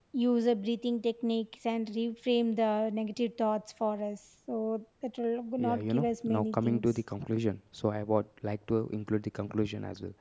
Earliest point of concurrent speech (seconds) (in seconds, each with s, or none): 5.6 s